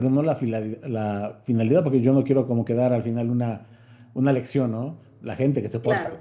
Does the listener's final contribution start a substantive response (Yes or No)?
No